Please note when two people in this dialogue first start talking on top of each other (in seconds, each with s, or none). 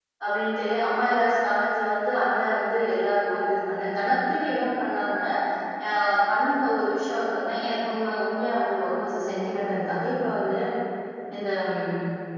none